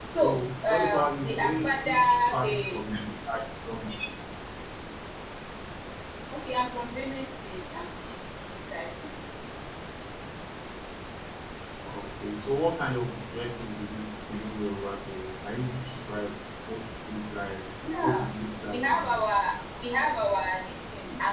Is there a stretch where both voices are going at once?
Yes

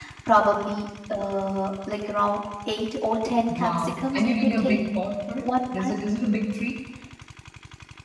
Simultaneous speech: Yes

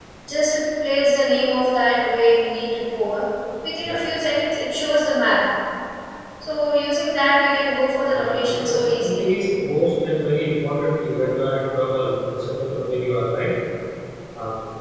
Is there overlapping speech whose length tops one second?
Yes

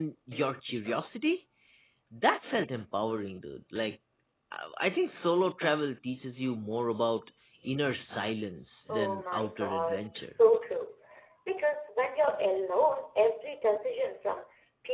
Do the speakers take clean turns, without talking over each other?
No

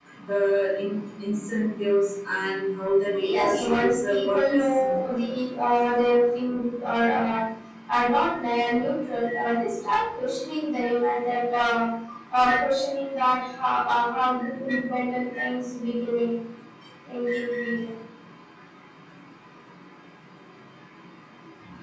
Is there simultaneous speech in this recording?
Yes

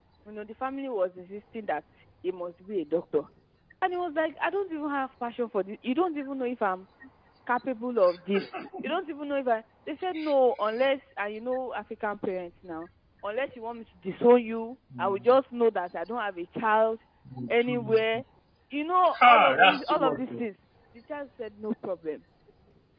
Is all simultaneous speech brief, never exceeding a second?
No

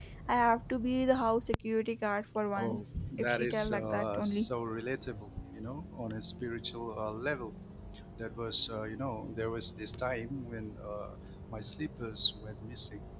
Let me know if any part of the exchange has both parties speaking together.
Yes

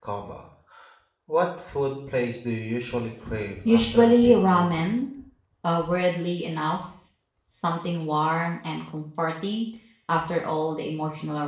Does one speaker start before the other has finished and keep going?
Yes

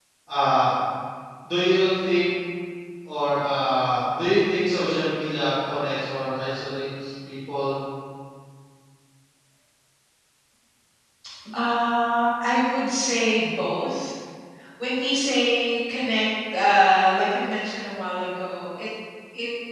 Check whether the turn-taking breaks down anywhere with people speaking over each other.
No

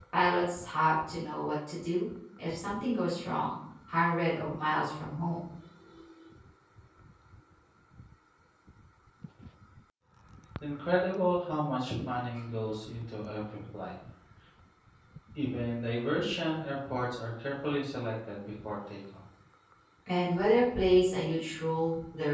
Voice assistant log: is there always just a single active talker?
Yes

